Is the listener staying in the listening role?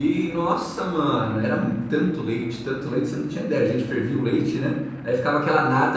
Yes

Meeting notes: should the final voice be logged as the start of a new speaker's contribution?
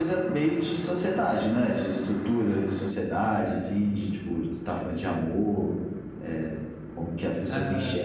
Yes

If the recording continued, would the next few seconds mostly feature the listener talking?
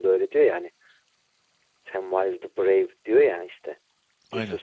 No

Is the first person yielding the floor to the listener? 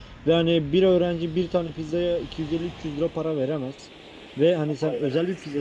No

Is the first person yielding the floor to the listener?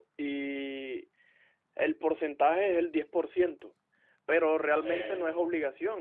No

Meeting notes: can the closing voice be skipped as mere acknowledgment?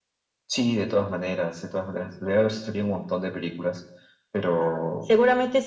No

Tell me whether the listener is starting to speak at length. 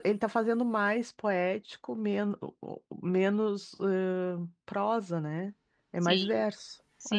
Yes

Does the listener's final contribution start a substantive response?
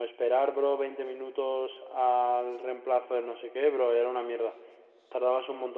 No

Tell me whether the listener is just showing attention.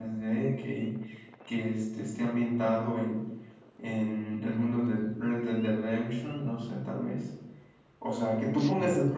Yes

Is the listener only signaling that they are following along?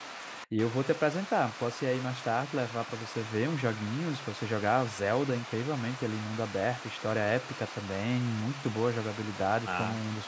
Yes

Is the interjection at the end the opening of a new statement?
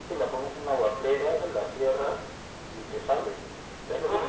Yes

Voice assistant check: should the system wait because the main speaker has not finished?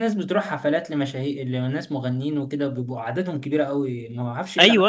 No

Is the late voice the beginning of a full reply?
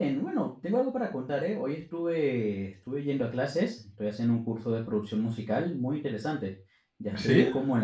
No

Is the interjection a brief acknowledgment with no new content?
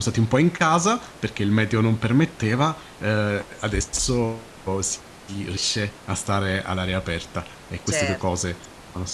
Yes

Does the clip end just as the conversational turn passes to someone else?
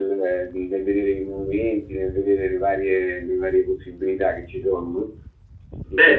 Yes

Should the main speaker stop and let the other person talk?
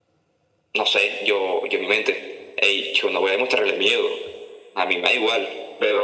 Yes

